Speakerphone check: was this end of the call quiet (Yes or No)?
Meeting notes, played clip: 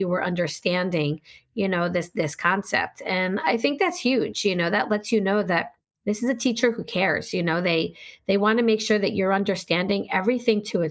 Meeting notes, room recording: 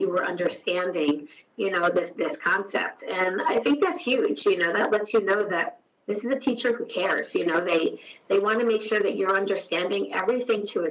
Yes